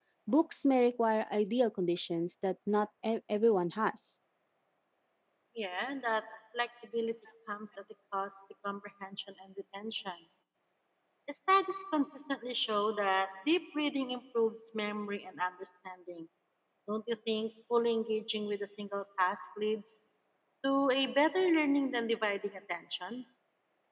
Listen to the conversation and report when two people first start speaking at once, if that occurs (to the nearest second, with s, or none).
none